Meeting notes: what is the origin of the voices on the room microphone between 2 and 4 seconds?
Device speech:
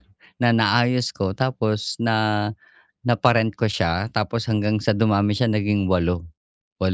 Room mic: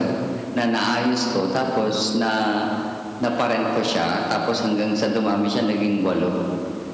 echo only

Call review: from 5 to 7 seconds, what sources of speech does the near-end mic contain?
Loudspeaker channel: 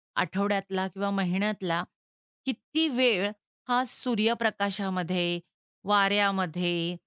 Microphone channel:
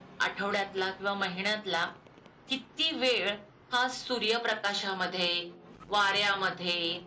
echo only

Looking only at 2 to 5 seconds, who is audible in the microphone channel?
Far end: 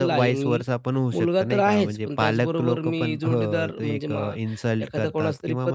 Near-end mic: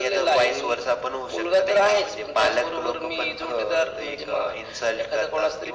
echo only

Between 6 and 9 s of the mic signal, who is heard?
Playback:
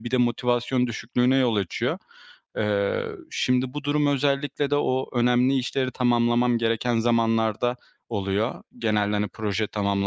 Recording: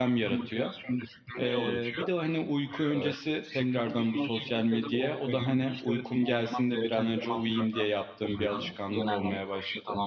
both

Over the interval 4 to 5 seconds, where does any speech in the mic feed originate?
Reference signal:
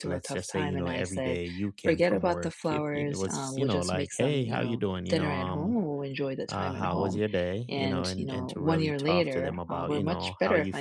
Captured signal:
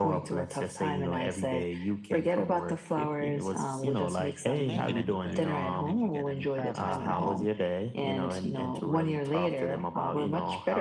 both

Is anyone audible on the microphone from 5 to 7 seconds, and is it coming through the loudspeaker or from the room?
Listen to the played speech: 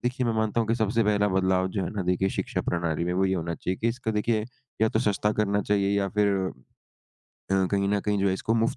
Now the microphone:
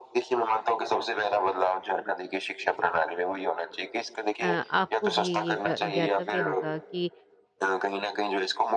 both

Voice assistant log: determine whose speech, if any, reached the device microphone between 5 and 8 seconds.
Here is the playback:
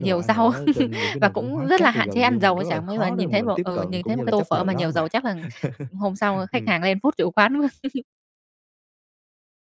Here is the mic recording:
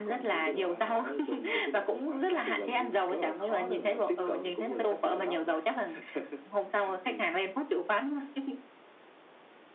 echo only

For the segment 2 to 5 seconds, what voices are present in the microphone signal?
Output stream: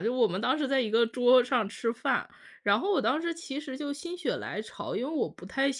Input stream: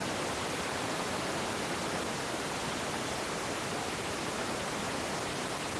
neither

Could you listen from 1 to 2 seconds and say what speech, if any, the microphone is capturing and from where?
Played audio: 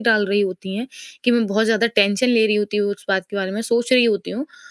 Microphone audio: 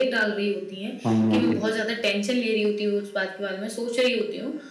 both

